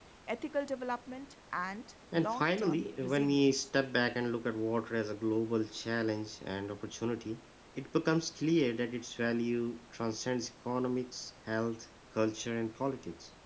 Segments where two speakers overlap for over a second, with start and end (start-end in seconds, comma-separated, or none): 2.1-3.7